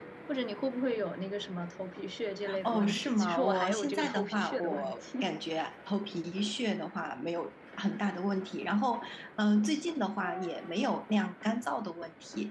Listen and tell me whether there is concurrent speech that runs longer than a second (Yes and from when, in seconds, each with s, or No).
Yes, from 2.4 s